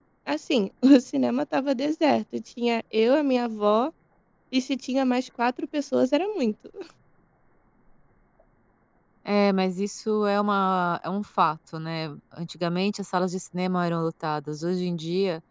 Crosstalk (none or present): none